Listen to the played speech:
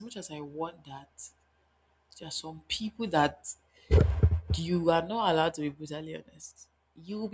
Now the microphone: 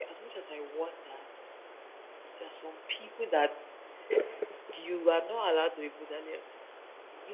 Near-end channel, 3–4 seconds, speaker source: echo only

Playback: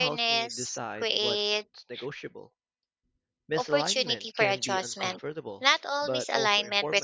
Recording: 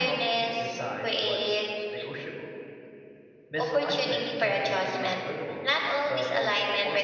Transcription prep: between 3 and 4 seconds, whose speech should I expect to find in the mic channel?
echo only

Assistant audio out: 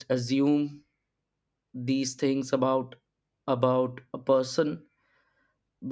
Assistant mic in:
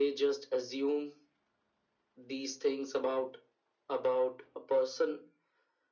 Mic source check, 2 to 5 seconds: echo only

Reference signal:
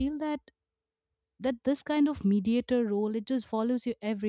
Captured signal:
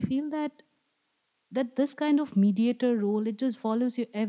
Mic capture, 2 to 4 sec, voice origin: echo only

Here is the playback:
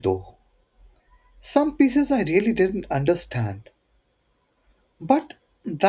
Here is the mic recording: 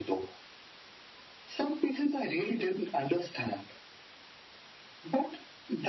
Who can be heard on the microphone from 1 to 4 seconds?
echo only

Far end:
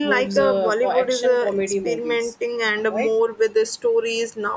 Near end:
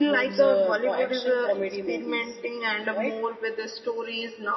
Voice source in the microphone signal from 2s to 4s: echo only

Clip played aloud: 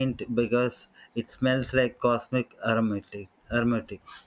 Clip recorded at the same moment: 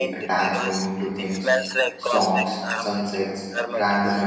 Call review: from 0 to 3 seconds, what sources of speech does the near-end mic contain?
both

